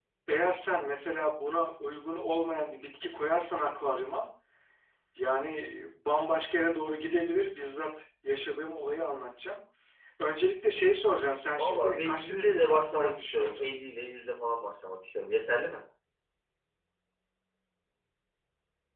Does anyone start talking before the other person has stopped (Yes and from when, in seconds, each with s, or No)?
Yes, from 11.6 s